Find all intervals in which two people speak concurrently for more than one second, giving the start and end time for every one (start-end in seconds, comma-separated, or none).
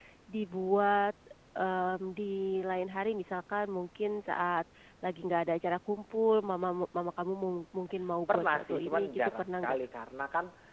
8.3-9.8